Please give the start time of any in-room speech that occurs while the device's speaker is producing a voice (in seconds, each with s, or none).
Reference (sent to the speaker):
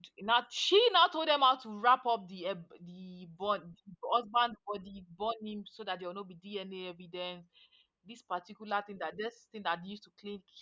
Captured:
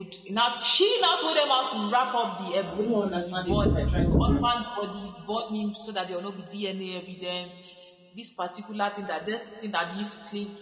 2.7 s